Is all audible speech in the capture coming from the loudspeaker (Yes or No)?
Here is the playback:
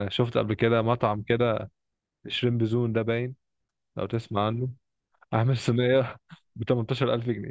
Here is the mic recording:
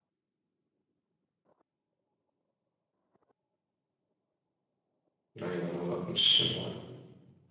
No